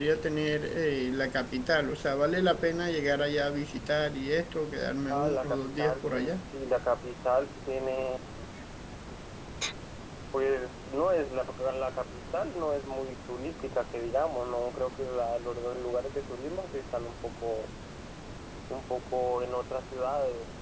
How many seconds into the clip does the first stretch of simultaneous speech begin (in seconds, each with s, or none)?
5.1 s